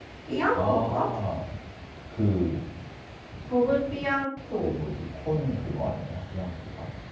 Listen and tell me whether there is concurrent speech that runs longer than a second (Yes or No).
No